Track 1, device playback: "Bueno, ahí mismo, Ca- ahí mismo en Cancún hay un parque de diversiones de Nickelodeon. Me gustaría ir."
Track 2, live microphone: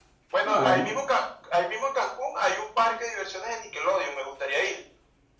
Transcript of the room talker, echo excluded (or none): Ah, bueno.